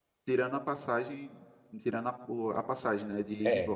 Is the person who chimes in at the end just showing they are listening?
No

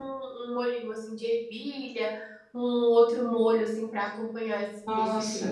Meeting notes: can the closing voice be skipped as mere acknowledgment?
No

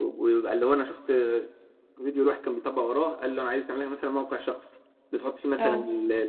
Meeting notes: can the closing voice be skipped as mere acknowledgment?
Yes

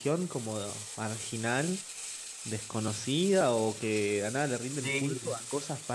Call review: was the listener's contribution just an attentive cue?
Yes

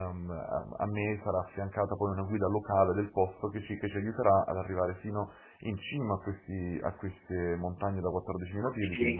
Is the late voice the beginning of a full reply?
Yes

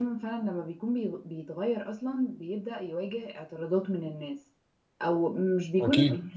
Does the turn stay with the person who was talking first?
Yes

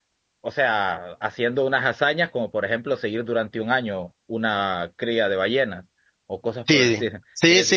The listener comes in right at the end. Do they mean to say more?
Yes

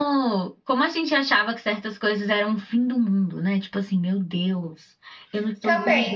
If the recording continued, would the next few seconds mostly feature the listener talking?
Yes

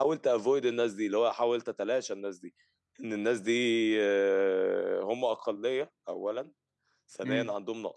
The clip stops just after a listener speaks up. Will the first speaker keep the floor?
Yes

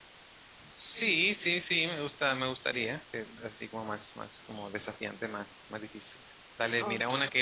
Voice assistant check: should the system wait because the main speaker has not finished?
Yes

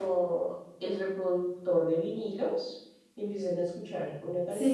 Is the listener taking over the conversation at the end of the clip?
No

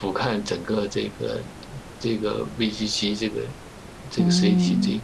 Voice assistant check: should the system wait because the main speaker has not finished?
No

